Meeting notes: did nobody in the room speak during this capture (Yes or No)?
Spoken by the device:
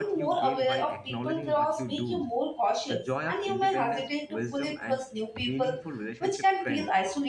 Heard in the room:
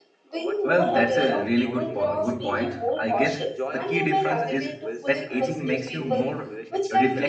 No